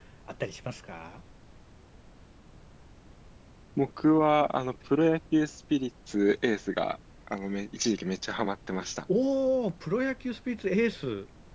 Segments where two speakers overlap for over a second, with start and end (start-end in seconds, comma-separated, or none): none